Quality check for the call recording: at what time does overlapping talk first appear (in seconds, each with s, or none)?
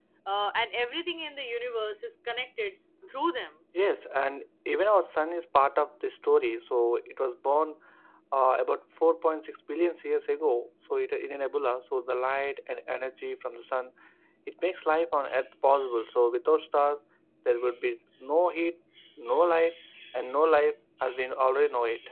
none